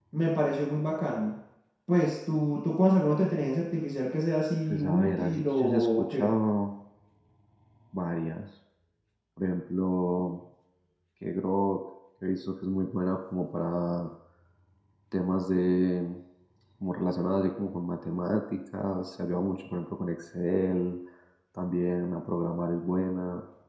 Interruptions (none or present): present